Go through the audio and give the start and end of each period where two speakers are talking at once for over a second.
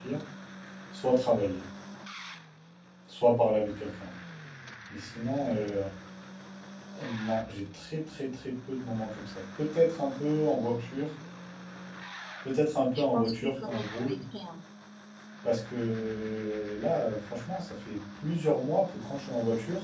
12.9-14.2

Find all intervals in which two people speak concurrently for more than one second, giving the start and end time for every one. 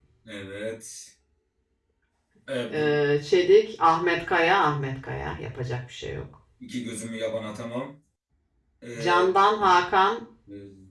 none

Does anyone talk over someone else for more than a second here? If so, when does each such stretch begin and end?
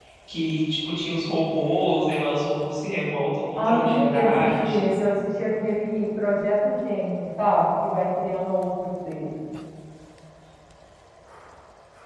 3.5-4.8

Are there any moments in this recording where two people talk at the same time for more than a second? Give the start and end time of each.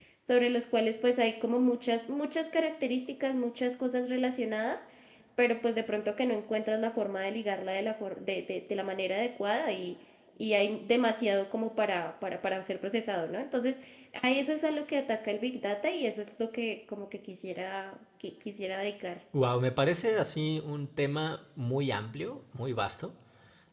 none

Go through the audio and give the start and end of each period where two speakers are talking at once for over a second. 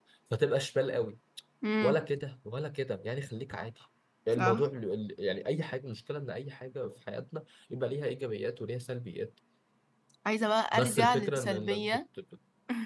10.7-12.0

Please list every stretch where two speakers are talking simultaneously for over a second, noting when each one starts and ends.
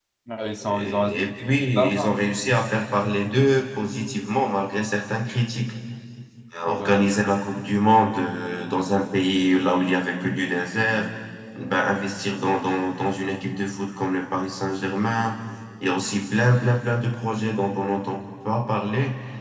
0.6-2.0

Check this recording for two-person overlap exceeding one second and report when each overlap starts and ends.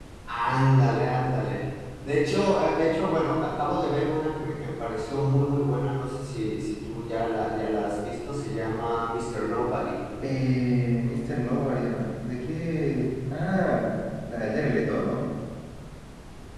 none

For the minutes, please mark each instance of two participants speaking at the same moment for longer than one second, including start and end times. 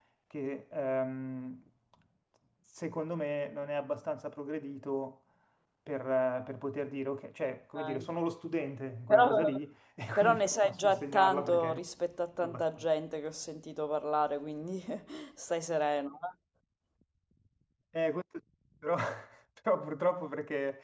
10.2-11.8

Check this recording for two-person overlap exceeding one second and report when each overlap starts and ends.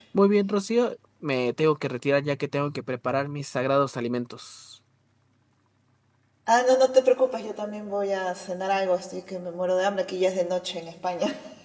none

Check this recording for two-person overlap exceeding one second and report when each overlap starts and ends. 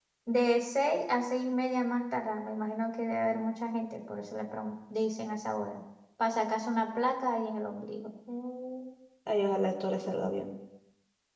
none

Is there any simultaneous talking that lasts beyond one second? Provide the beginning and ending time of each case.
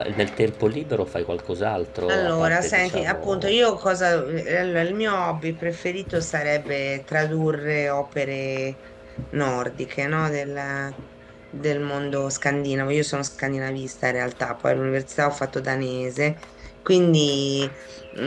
2.1-3.6

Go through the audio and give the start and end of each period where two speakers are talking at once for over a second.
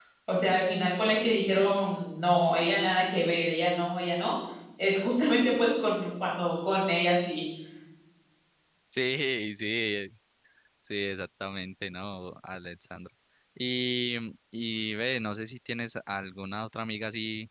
none

